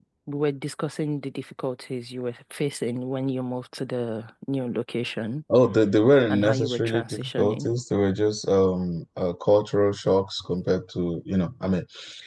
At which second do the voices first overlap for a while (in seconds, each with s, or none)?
6.3 s